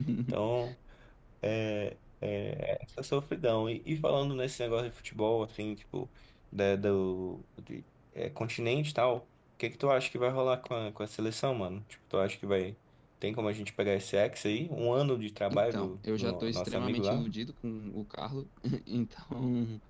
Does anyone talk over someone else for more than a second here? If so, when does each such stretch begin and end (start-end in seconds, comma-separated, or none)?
15.5-17.3